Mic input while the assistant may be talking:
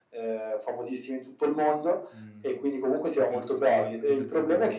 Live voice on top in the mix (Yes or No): No